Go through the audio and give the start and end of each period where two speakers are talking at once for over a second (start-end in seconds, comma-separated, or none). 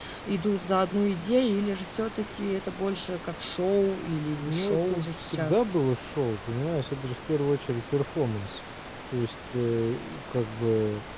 4.4-5.6